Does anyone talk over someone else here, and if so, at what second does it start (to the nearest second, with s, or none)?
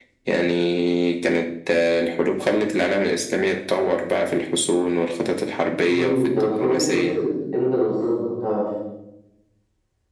6 s